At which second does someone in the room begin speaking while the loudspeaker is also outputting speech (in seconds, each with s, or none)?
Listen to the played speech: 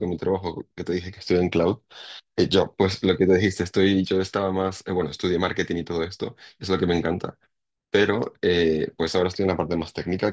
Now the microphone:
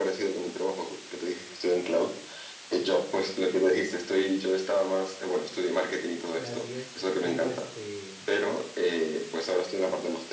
6.4 s